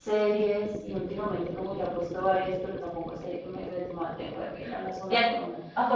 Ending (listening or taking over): taking over